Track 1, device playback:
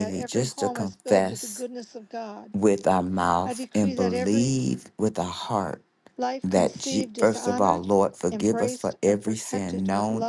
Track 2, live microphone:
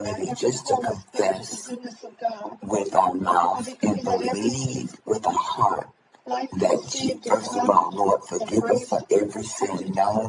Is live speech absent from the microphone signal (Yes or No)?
Yes